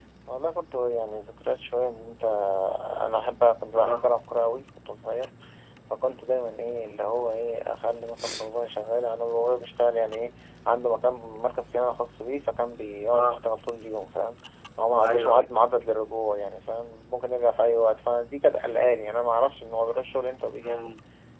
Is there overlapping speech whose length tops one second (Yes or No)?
No